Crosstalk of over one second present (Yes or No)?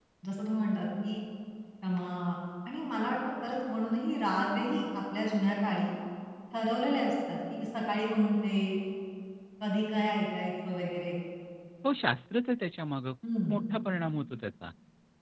No